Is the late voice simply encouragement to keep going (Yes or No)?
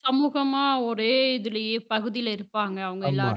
No